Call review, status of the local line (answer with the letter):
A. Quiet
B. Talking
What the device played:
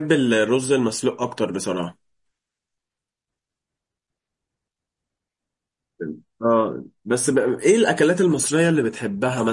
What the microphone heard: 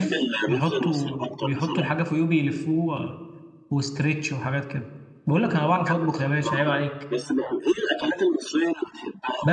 B